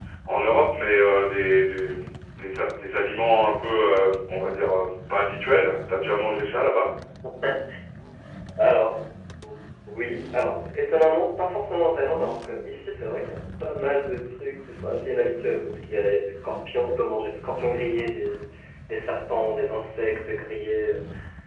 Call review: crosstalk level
none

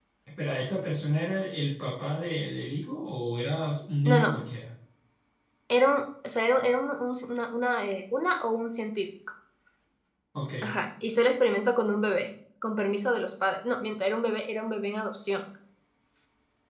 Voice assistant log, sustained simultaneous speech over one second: none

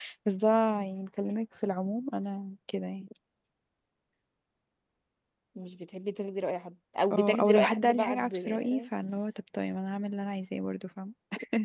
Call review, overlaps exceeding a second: present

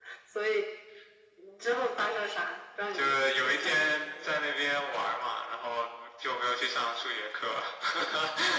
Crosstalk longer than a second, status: present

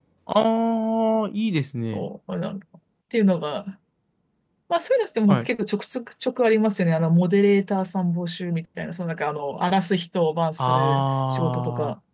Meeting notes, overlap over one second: present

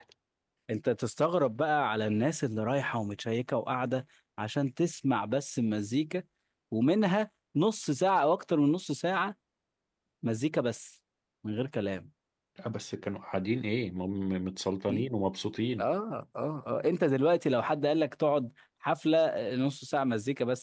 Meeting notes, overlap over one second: none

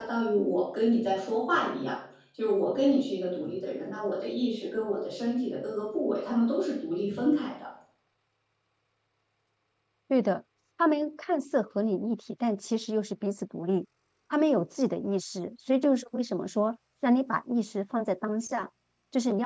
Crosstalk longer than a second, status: none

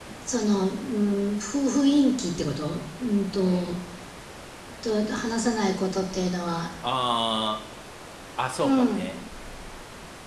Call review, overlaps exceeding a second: none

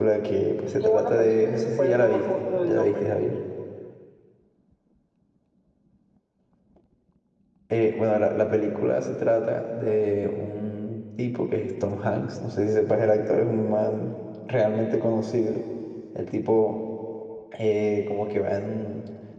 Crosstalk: present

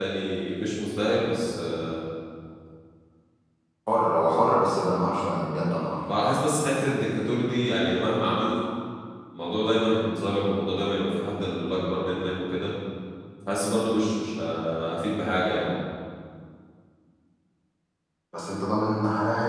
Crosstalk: none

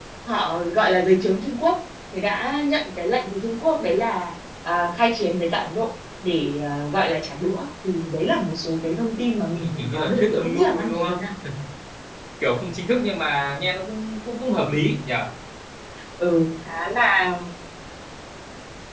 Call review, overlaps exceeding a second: present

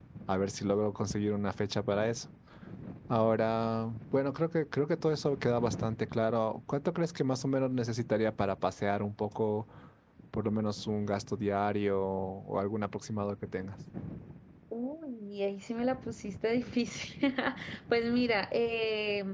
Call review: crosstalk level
none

